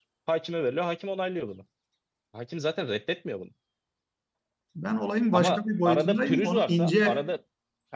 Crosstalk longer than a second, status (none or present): present